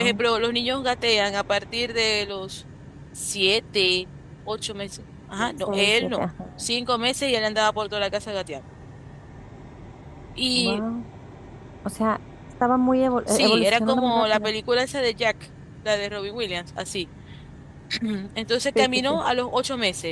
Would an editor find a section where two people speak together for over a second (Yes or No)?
Yes